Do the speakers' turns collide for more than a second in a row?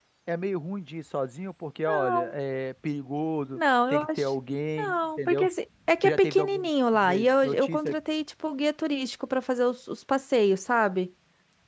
Yes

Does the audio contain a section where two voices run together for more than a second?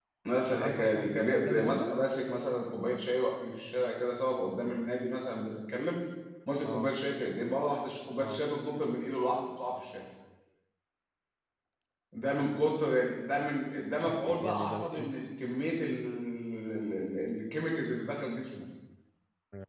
Yes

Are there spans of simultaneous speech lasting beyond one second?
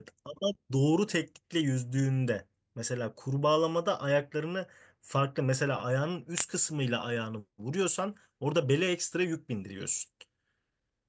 No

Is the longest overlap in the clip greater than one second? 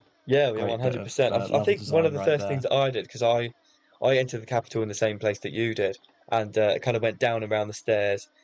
Yes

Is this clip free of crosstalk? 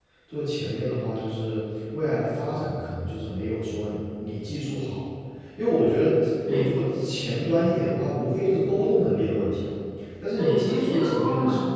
No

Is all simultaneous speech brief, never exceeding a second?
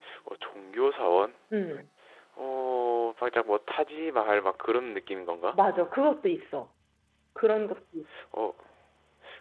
Yes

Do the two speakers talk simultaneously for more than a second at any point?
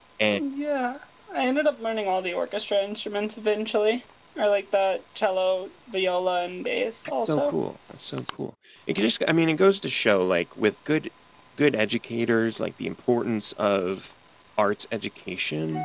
No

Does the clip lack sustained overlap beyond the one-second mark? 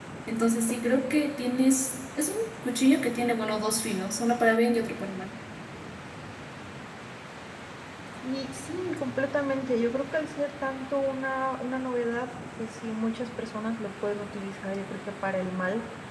Yes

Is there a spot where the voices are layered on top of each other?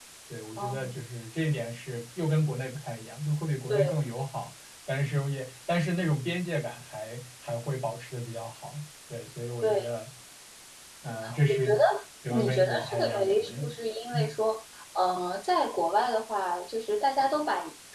Yes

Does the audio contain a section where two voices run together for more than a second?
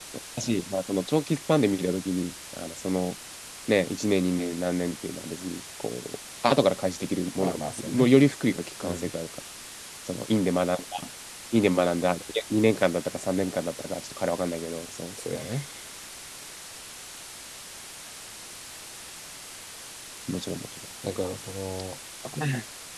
No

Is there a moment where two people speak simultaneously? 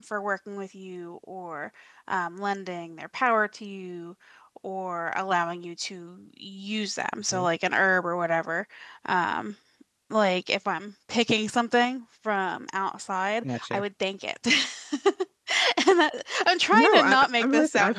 Yes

